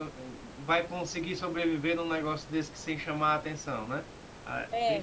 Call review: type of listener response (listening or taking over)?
taking over